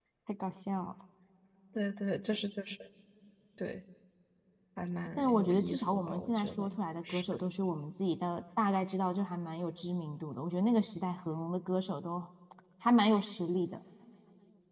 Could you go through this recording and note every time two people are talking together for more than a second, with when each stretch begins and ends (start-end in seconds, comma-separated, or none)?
5.2-6.8